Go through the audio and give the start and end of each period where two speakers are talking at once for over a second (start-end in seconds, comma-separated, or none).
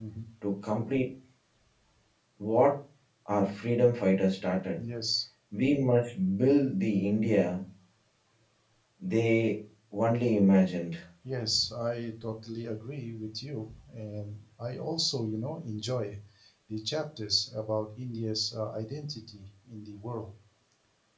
none